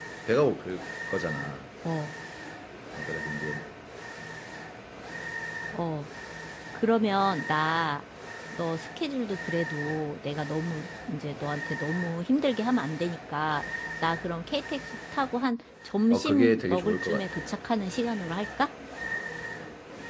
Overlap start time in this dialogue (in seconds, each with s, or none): 16.1 s